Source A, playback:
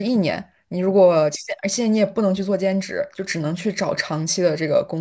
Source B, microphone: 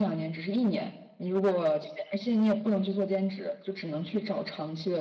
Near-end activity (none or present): none